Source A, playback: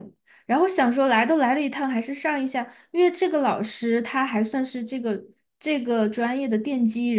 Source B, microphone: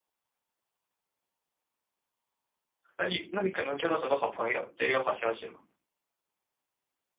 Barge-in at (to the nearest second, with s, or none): 3 s